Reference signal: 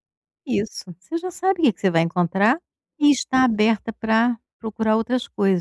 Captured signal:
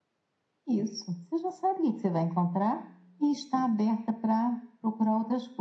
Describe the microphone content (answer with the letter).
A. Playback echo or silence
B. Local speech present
A